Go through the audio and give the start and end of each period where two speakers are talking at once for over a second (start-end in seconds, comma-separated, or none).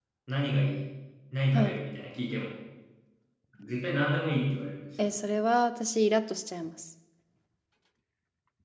none